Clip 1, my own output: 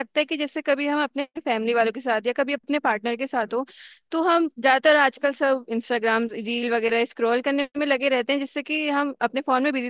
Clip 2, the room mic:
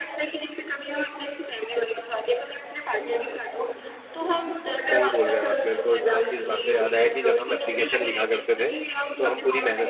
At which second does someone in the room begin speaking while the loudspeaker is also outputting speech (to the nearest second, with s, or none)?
5 s